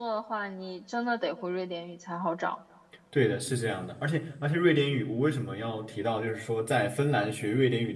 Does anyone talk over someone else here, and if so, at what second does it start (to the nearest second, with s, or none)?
none